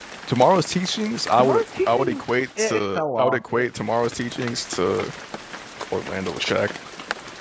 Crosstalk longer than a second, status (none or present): present